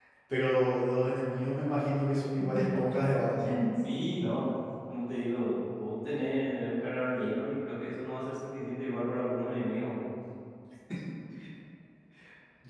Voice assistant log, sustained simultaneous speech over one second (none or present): none